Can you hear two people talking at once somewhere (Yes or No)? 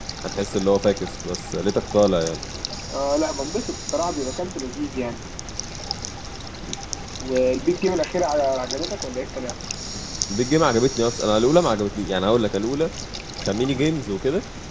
No